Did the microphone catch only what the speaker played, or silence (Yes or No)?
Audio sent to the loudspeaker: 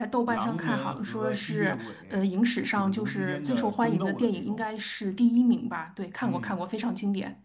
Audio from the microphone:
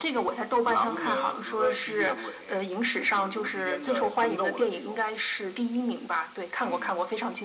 Yes